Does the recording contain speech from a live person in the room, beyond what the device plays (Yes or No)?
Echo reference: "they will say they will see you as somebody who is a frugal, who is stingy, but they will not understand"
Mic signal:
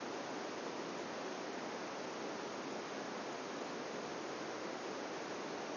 No